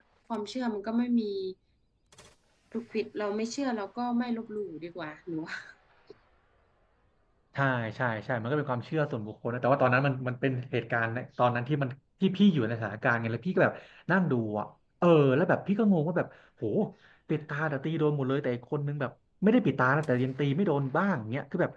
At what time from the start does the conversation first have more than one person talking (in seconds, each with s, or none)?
none